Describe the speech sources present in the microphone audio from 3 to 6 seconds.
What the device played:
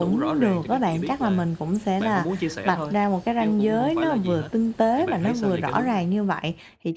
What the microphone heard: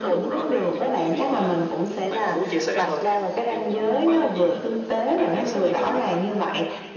echo only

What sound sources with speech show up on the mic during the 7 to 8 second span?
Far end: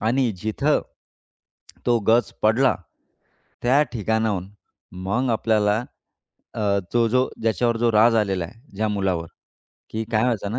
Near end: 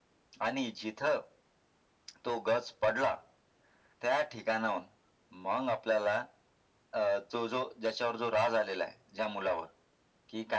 echo only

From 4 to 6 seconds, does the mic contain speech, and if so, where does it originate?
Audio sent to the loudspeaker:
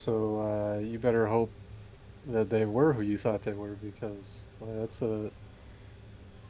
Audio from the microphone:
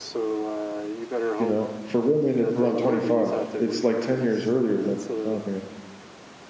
both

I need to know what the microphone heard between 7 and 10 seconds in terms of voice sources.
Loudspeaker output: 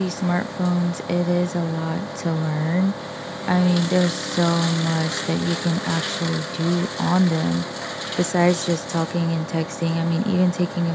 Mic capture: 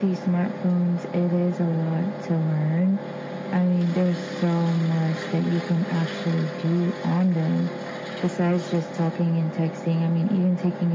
echo only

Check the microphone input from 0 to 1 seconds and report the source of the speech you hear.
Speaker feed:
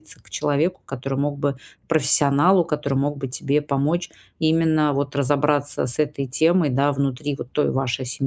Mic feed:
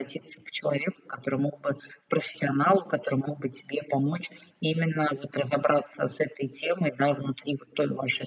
echo only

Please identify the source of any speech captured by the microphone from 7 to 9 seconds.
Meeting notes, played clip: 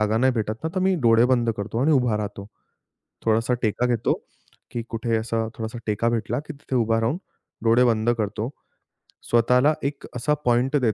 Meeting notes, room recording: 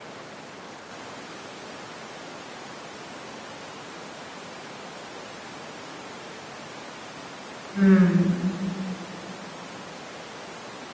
user only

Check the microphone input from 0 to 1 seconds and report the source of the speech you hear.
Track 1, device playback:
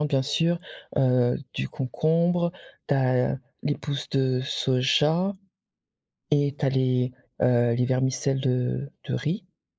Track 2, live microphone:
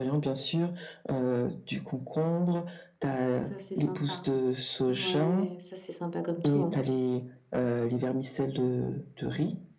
echo only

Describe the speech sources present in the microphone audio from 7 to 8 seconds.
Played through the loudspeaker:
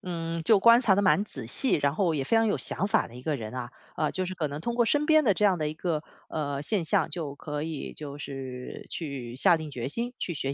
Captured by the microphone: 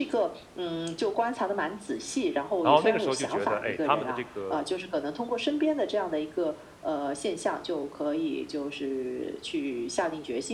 echo only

